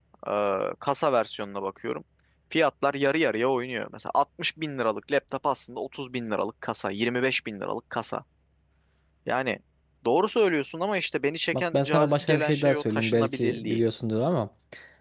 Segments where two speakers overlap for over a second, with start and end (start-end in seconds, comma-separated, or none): 11.5-13.8